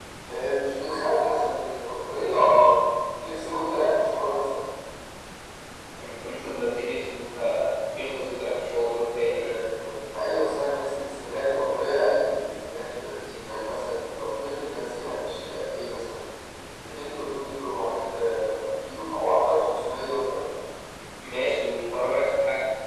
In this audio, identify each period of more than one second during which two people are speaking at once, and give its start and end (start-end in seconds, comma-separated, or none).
none